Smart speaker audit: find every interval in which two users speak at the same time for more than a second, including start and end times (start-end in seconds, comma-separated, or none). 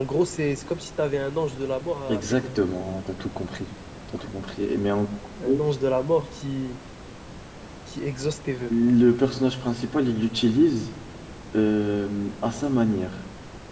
none